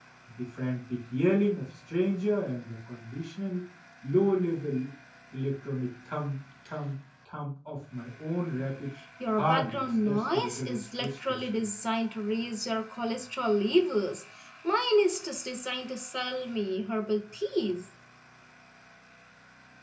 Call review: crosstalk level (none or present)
present